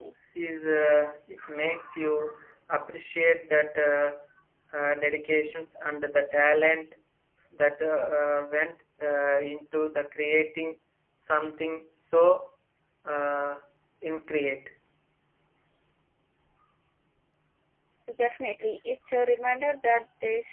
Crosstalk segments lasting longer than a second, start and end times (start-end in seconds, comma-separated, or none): none